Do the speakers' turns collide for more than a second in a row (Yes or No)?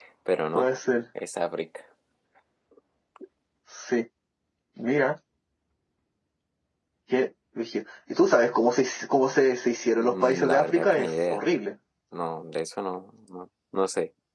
Yes